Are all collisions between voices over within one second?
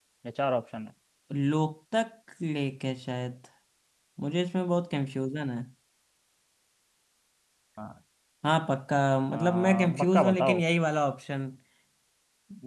No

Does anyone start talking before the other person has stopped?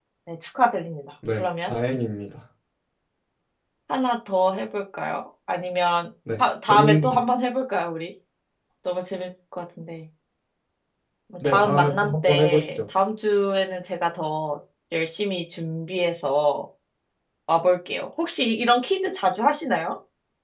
Yes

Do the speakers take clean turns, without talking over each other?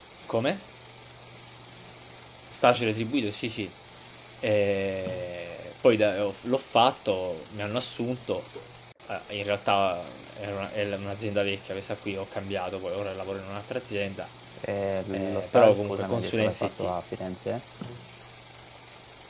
No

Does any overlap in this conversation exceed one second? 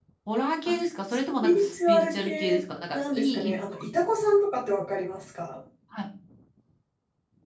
Yes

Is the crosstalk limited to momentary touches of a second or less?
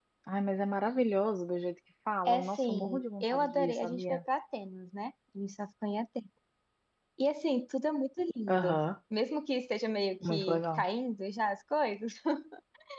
No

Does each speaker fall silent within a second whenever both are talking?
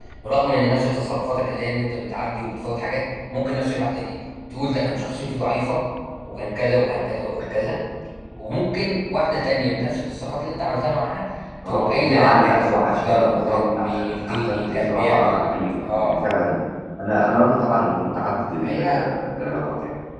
No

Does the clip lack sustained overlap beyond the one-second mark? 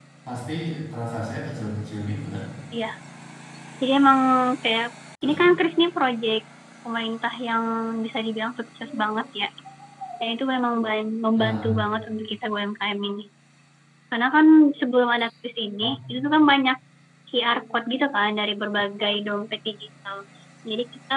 Yes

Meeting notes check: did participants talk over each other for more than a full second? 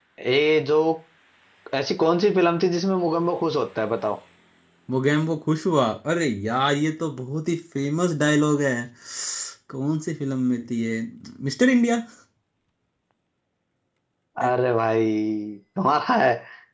No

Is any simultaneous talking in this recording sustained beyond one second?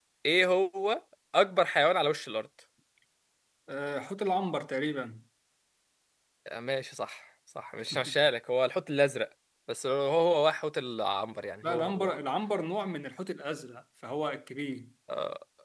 No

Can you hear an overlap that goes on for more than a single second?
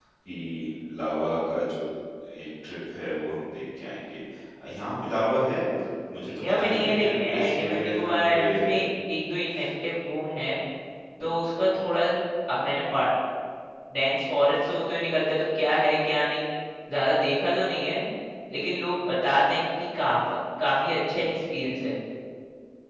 Yes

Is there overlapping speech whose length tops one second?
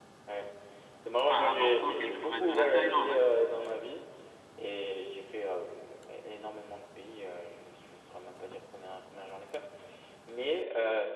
Yes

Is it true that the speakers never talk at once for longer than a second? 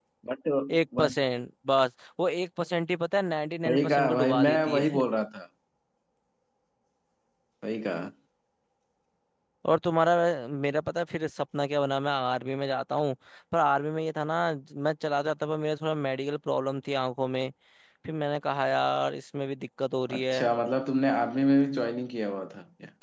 No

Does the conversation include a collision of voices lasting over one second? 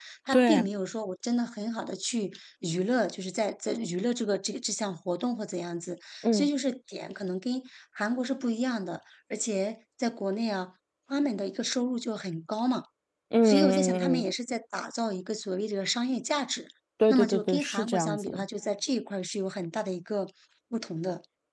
Yes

